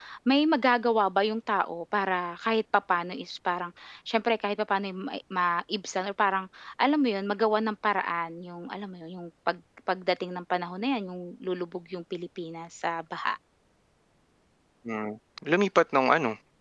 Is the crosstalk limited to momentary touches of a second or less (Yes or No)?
Yes